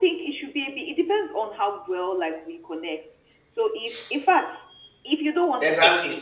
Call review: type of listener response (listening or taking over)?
taking over